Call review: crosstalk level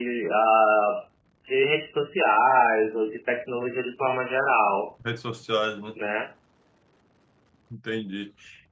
none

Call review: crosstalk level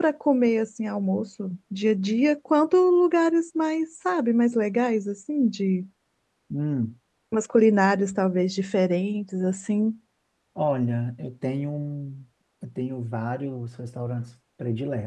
none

